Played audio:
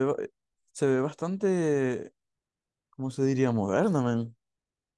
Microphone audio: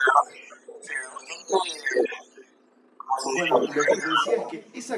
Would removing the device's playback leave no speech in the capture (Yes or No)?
No